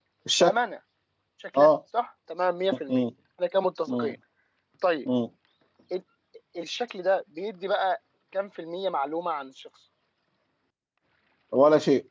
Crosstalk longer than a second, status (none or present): none